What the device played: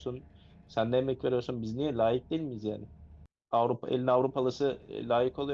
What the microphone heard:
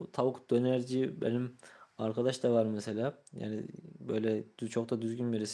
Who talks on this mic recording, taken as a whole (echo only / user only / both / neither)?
user only